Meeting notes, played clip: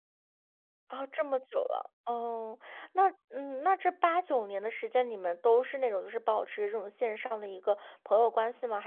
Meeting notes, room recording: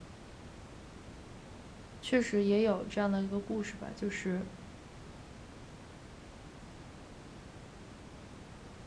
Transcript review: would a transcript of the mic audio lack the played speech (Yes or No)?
Yes